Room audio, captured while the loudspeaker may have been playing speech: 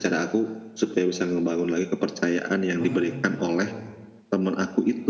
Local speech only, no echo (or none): Wah, gitu.